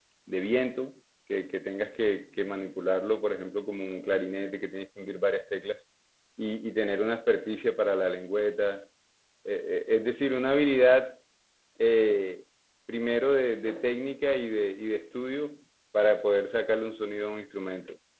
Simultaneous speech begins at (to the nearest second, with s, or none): none